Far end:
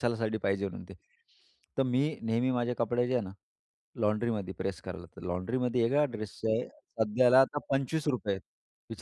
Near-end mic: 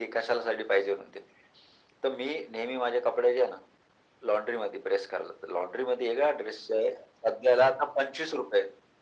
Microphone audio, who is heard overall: echo only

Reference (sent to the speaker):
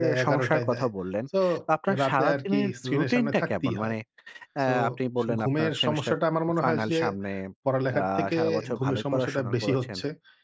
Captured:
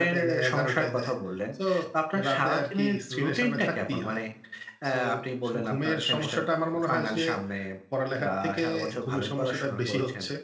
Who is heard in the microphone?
echo only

